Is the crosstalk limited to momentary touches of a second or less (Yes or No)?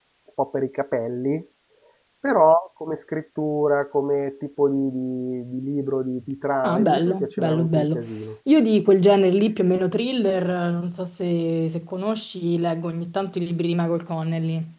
No